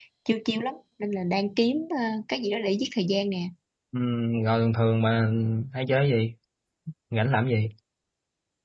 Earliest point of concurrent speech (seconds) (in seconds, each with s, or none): none